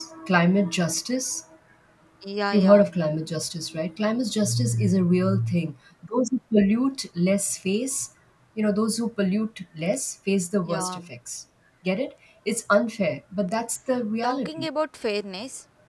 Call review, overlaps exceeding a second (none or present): none